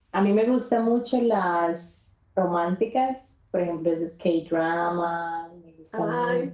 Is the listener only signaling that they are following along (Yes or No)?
No